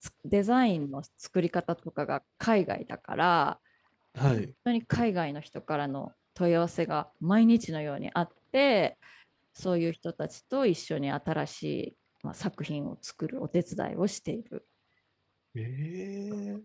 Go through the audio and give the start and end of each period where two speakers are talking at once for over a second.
none

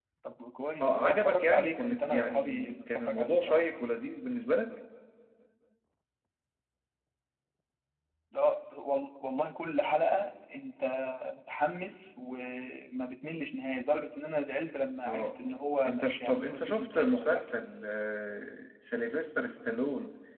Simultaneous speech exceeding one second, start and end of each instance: 0.8-3.7, 15.9-17.5

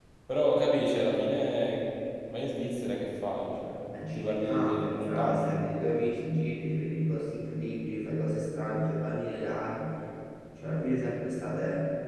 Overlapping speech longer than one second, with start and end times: 4.1-5.5

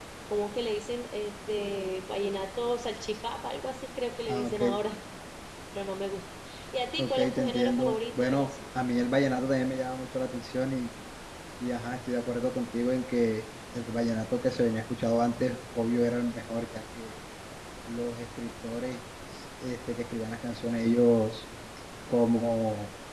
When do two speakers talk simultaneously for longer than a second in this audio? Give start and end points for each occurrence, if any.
7.0-8.5

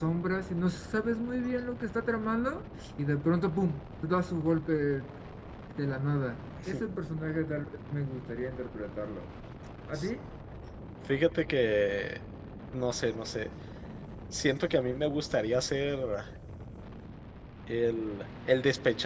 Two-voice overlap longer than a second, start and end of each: none

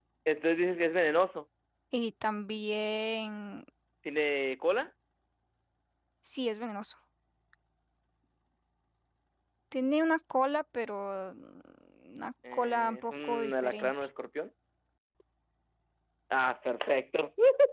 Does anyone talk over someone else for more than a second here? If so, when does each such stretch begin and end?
12.5-13.9

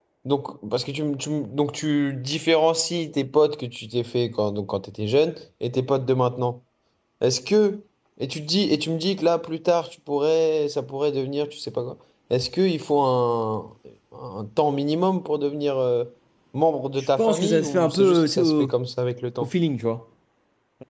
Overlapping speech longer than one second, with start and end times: 17.2-18.7

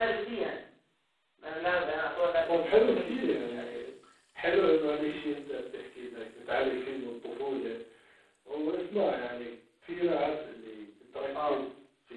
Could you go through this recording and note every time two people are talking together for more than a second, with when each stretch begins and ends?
2.5-3.8

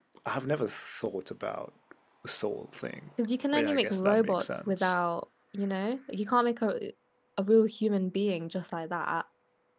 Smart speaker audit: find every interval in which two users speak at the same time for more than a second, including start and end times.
3.5-5.0

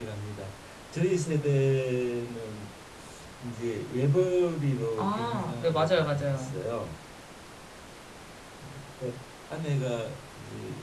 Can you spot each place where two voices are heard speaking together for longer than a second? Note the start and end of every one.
5.0-6.5

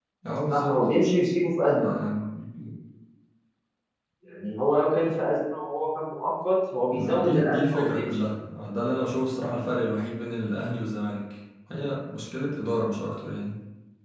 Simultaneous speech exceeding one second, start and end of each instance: 6.9-8.2

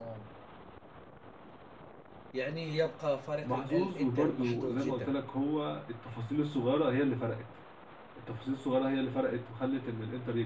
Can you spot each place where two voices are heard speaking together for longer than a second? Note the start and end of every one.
3.4-5.1

